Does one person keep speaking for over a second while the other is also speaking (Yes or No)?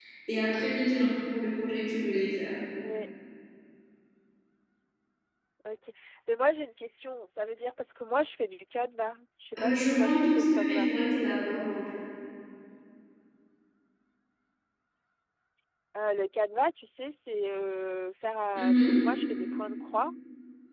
Yes